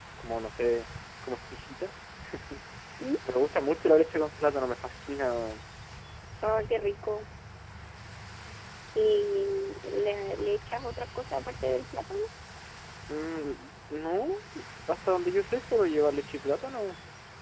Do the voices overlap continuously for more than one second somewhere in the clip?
No

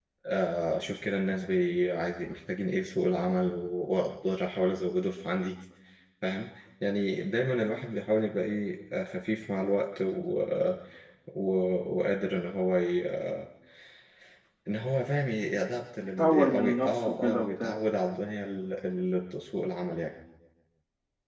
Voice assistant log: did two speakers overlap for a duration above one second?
Yes, from 16.2 s

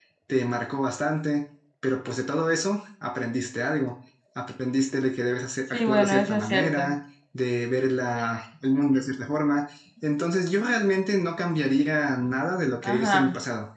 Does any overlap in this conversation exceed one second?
Yes, from 5.7 s

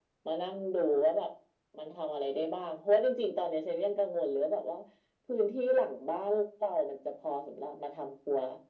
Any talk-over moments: No

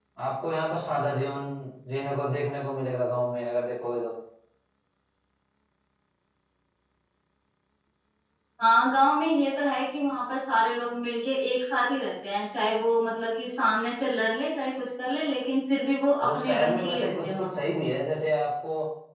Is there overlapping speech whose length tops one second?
Yes, from 16.2 s

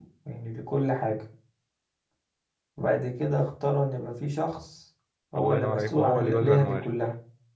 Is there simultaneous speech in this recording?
Yes, from 5.4 s

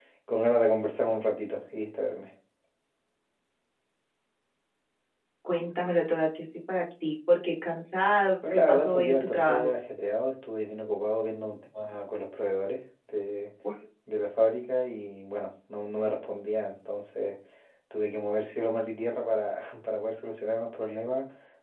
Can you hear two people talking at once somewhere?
Yes, from 8.4 s

